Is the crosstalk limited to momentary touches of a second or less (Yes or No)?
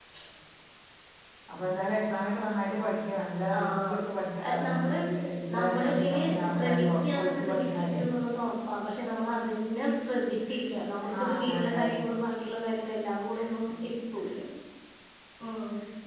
No